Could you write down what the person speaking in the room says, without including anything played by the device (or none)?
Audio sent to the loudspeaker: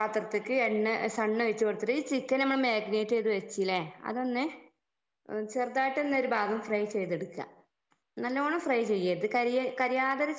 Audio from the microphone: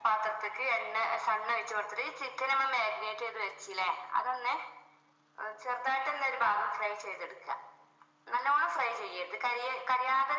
none